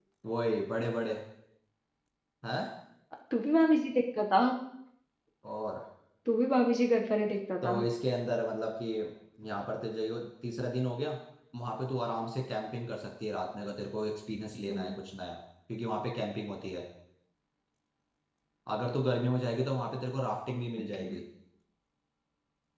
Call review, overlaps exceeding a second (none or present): none